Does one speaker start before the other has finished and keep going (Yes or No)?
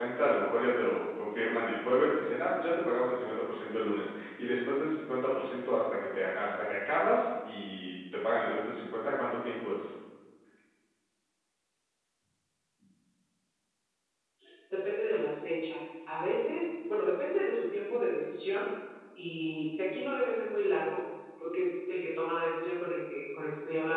No